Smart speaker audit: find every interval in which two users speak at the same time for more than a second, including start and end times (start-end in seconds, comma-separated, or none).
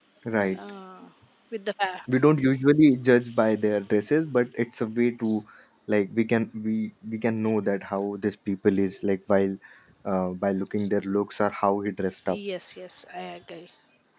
none